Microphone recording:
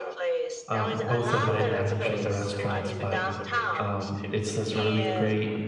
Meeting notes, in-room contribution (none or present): present